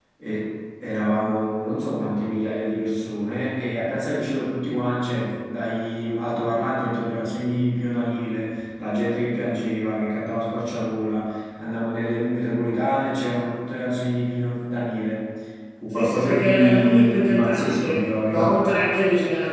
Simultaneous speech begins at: 16 s

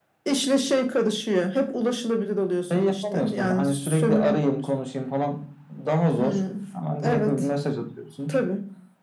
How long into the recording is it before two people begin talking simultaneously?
3 s

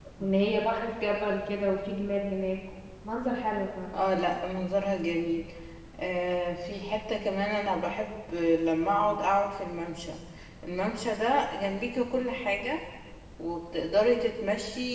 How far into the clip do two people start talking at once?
none

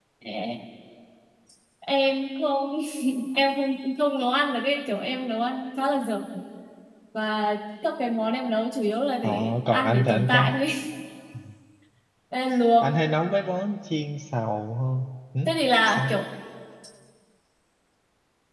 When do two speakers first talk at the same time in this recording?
9 s

